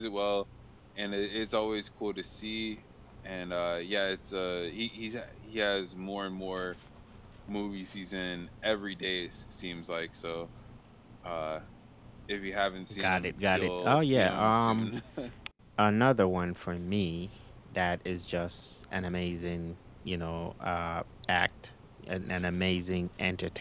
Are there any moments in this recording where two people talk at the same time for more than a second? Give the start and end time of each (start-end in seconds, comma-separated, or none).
12.9-14.9